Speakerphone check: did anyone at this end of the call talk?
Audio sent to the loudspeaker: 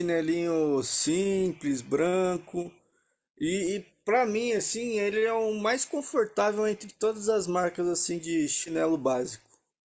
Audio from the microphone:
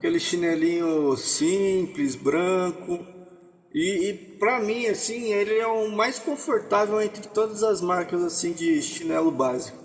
No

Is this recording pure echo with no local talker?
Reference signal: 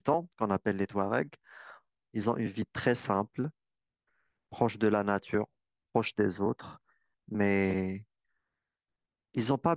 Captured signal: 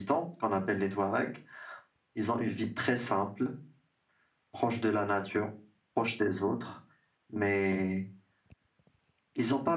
Yes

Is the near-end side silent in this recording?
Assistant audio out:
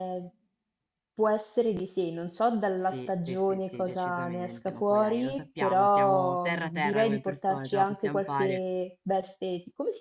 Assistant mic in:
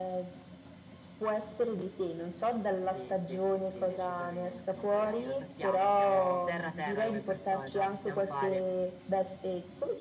Yes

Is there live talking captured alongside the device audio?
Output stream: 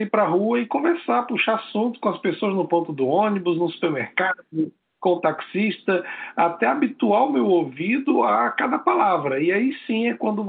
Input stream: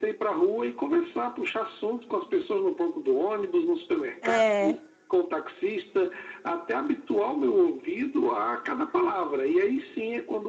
Yes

